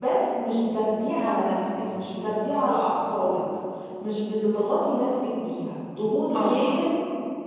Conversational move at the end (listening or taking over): listening